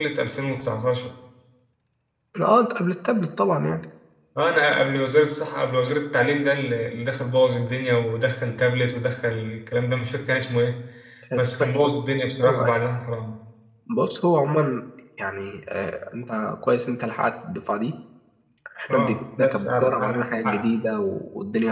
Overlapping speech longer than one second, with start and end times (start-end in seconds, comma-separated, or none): 18.9-20.6